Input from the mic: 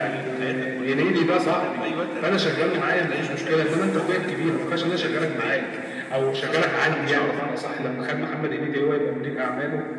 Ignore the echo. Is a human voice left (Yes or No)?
No